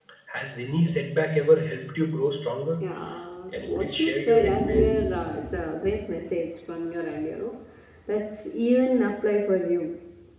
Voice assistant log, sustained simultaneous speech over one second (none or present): present